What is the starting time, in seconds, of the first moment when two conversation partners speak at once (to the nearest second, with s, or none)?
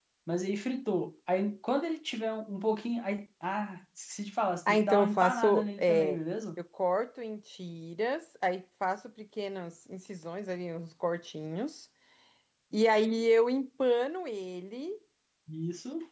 5 s